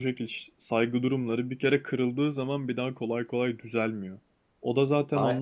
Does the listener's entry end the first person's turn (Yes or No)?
No